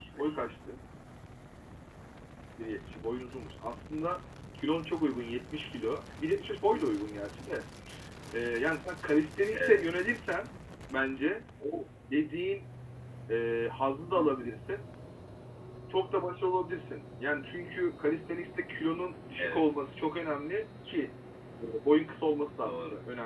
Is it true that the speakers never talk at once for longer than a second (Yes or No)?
Yes